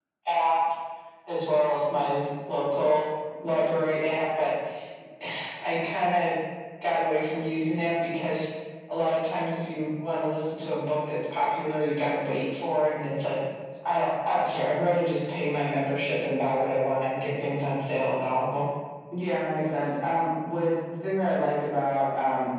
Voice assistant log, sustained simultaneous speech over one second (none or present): none